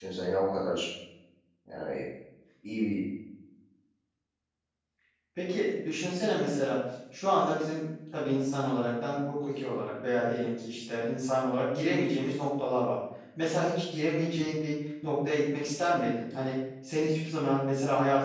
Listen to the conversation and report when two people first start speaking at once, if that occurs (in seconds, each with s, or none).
none